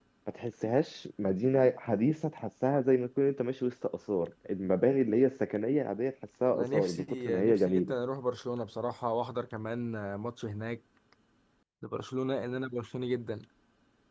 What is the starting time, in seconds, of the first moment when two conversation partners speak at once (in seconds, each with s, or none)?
6.5 s